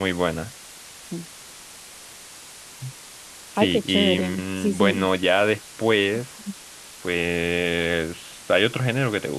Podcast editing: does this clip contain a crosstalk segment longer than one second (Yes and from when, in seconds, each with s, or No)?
Yes, from 3.6 s